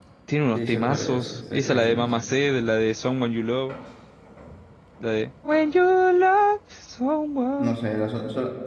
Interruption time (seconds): 0.6 s

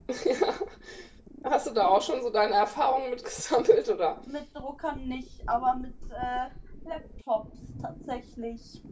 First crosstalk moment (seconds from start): none

